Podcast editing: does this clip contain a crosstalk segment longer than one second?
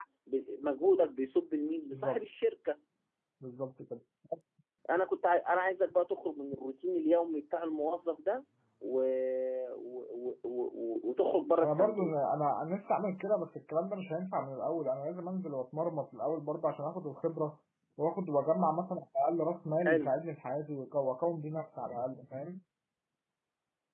No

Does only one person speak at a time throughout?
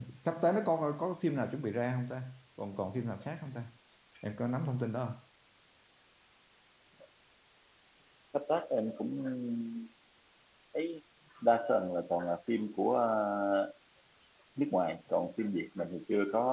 Yes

